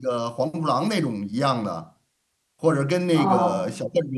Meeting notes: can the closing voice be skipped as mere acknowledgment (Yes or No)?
Yes